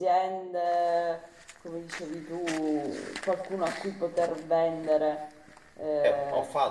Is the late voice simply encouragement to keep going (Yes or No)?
No